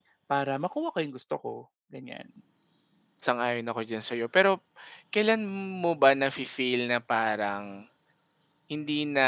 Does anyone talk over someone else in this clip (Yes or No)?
No